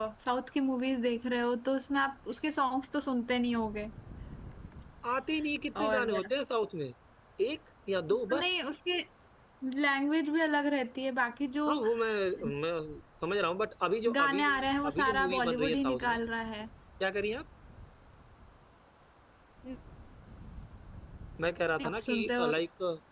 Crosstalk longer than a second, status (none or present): present